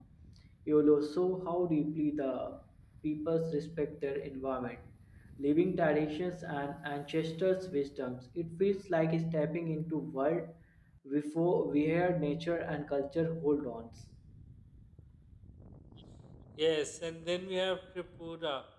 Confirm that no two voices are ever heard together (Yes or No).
Yes